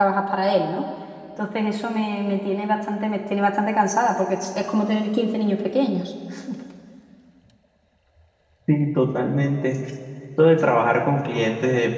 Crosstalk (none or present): none